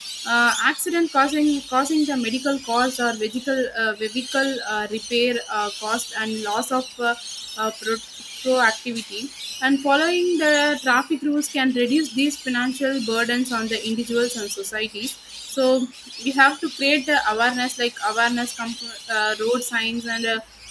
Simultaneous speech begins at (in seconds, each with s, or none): none